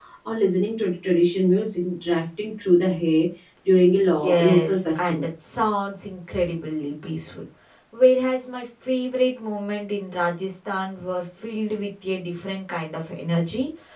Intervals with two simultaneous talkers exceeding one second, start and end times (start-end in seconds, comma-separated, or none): 4.0-5.3